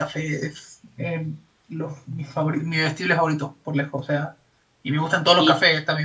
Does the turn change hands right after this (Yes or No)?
No